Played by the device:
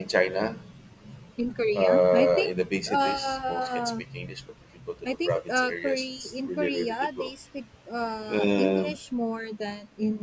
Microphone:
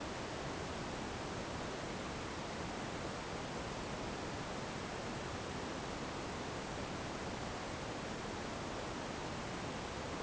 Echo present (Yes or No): No